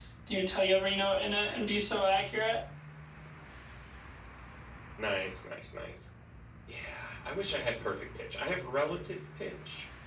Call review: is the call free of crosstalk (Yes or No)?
Yes